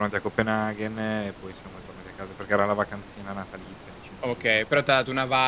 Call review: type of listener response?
taking over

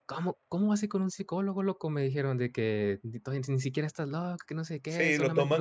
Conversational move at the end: taking over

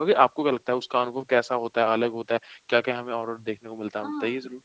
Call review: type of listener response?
taking over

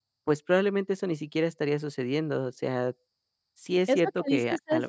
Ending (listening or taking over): taking over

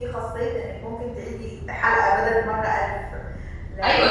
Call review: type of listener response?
taking over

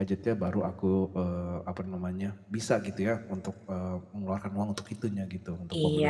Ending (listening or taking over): taking over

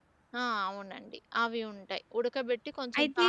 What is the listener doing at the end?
listening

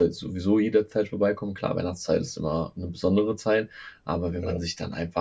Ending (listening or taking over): listening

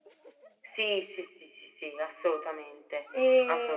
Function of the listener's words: taking over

